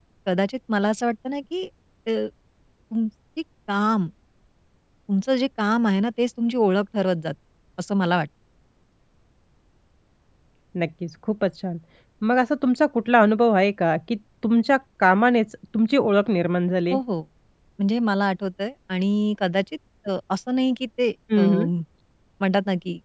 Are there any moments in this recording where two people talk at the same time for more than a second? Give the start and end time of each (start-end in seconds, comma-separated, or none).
none